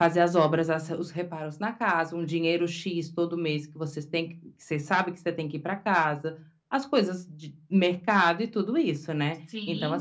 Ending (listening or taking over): listening